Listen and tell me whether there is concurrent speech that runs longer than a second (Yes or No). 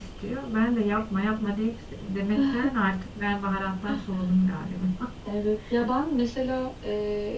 No